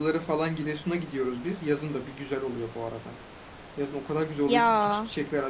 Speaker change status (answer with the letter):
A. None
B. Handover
A